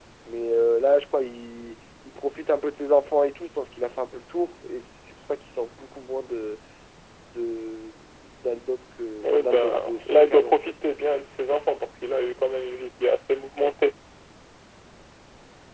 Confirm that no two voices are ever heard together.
No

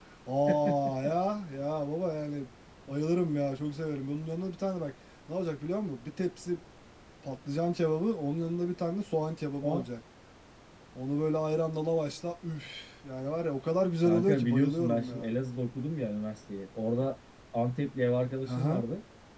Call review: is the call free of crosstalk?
No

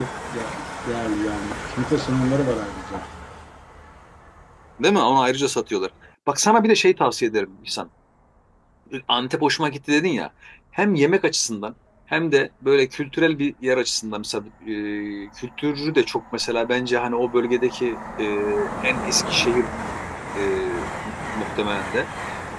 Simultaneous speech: No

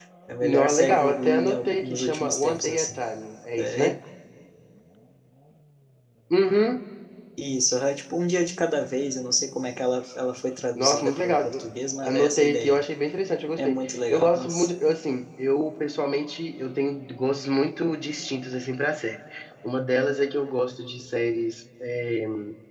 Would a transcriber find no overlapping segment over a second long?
No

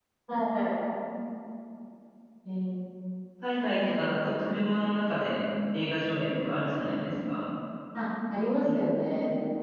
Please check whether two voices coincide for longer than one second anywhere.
No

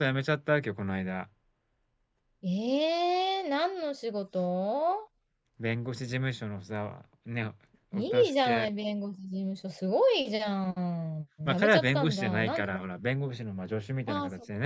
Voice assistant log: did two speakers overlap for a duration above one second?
Yes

